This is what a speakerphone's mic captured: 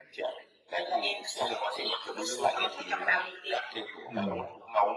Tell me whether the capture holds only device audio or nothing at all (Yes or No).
No